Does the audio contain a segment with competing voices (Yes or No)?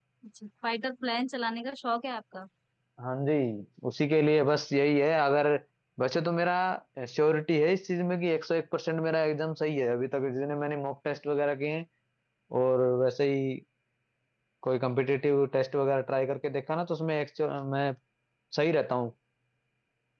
No